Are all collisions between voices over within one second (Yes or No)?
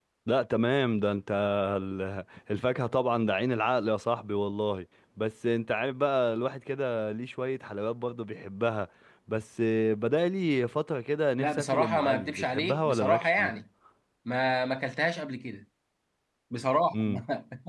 No